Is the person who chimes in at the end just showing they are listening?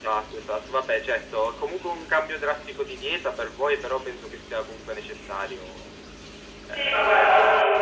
No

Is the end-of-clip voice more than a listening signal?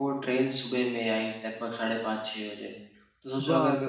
No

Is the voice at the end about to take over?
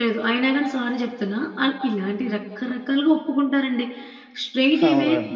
No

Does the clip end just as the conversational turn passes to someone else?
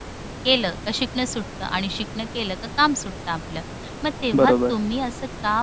No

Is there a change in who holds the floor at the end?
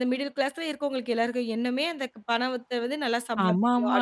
Yes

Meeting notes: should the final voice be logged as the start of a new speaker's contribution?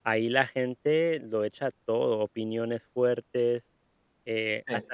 No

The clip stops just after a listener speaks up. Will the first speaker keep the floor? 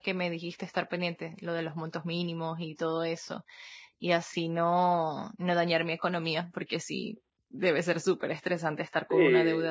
No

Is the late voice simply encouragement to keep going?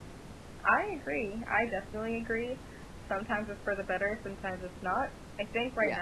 Yes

